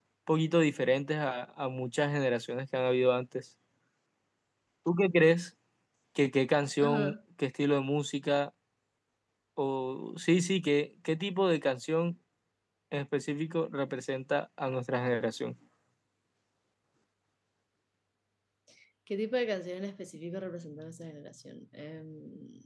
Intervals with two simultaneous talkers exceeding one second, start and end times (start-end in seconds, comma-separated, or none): none